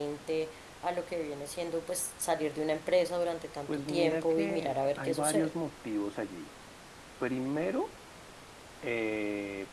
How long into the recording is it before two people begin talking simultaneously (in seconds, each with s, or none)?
3.7 s